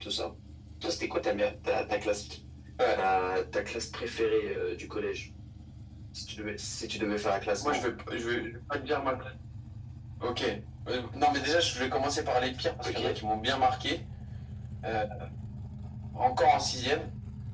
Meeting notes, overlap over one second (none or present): none